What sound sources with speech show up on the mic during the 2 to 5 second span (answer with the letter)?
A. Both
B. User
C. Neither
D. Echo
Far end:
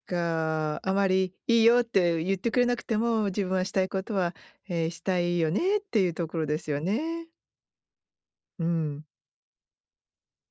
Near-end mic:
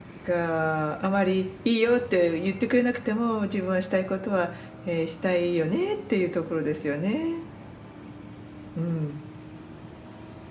D